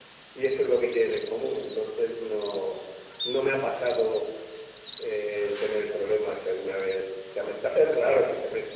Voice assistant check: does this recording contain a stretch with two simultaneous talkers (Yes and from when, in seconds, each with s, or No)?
No